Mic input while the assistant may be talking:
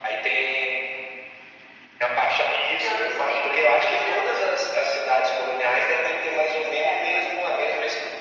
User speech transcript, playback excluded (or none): none